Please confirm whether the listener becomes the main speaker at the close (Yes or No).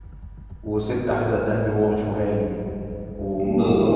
No